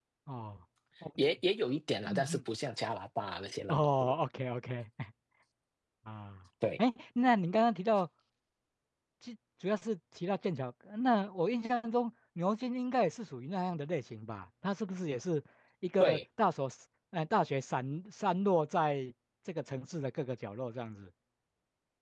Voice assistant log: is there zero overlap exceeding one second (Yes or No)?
Yes